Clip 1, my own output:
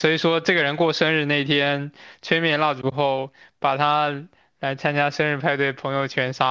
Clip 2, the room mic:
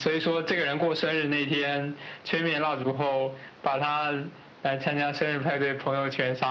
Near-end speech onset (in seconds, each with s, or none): none